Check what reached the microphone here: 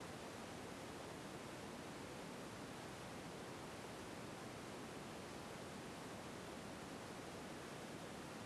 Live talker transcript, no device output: none

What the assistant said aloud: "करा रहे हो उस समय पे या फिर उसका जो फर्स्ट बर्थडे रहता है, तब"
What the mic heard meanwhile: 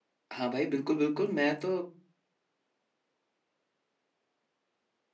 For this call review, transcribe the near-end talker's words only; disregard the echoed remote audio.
हाँ भाई बिल्कुल बिल्कुल मैं तो

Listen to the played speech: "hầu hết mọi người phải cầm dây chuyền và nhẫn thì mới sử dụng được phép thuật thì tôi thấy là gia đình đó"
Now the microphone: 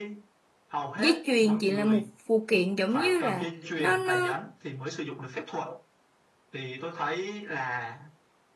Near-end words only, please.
dây chuyền chỉ là một phụ kiện giống như là nó nó

